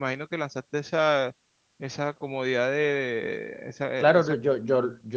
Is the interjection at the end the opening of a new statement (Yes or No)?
Yes